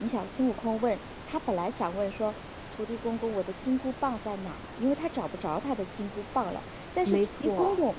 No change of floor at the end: Yes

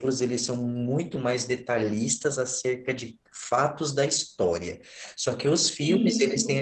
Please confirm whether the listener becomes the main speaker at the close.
No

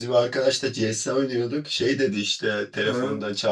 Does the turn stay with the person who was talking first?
Yes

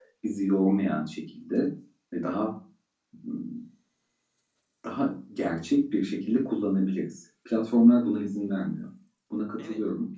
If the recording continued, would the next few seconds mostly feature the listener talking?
Yes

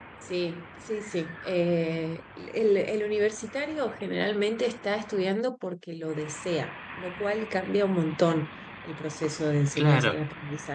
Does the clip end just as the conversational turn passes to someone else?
No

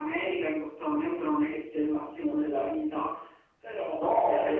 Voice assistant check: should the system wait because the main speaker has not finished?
No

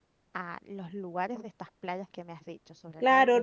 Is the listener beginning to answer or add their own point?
Yes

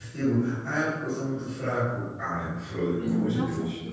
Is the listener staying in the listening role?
No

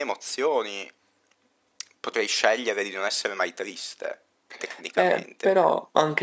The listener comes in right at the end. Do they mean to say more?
Yes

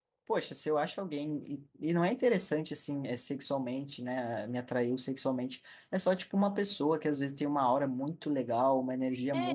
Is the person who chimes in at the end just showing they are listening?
Yes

